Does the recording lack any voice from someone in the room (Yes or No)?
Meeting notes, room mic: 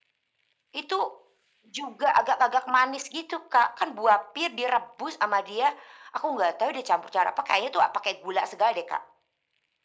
Yes